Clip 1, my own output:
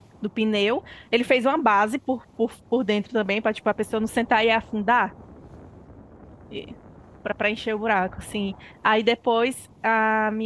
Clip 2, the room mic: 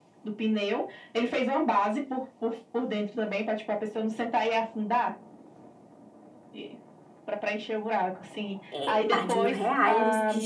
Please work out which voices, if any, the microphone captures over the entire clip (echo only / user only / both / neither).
both